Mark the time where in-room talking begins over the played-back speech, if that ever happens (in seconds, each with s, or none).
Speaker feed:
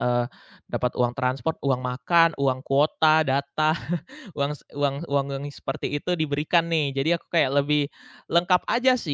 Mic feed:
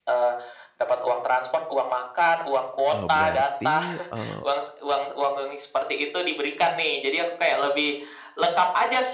2.9 s